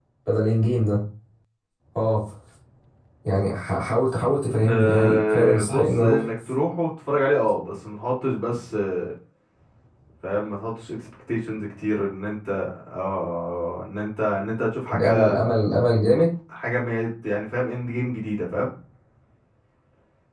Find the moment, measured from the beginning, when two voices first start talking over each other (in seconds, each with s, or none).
4.7 s